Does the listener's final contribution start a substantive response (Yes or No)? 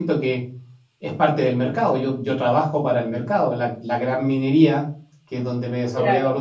No